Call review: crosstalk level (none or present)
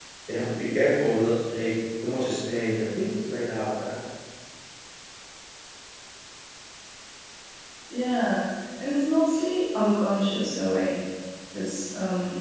none